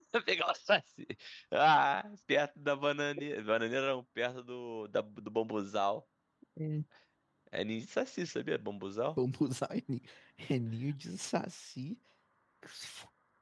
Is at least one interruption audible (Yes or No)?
No